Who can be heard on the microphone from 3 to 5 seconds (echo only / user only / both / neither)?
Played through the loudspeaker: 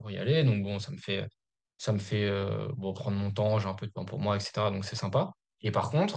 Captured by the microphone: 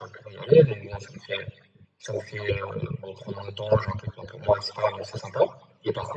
echo only